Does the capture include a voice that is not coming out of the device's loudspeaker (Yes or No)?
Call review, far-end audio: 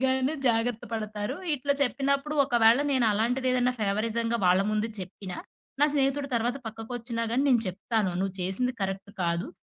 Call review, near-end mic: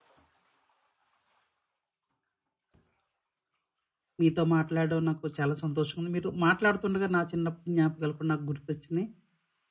Yes